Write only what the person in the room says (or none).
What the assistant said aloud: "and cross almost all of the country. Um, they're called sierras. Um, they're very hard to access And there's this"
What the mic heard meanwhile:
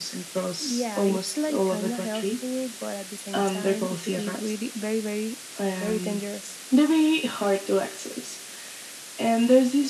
yeah, it's like kind of helpful, but at the same time, it could be really very, very, very dangerous.